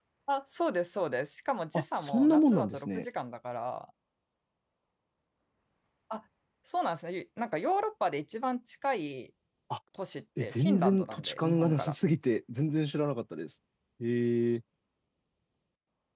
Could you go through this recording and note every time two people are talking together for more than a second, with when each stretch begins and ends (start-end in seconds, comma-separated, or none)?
1.7-3.0, 10.4-11.9